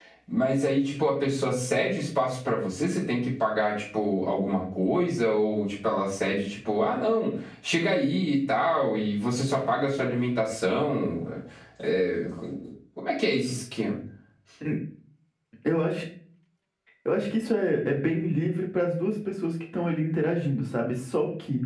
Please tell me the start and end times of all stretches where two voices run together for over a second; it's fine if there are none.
none

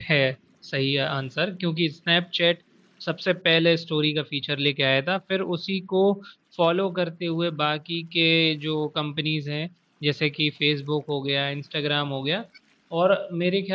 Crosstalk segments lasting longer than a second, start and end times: none

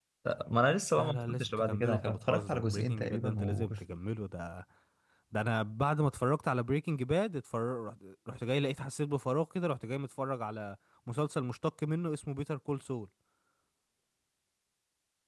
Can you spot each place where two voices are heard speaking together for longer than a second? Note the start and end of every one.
0.9-3.8

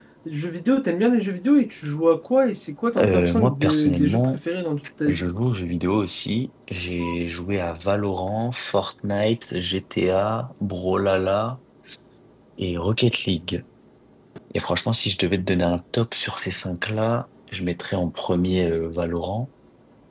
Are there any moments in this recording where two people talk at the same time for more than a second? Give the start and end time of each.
3.0-4.4

